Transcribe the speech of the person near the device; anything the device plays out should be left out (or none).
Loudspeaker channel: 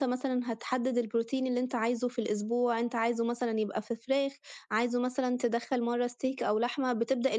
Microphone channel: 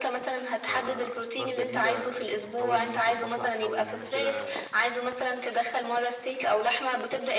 فأفكار جميلة أكيد هاحاول إن أنا أضبّطها، هاحاول إن أنا كده